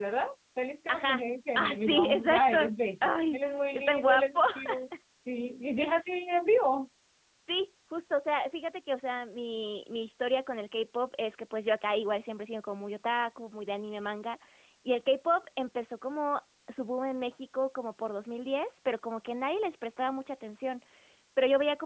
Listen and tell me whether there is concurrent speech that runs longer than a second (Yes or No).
Yes